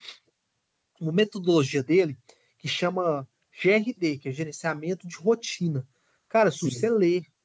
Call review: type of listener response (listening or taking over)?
listening